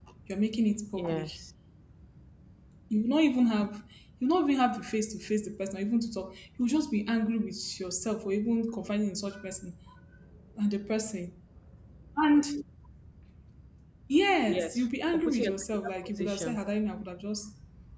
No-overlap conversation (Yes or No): No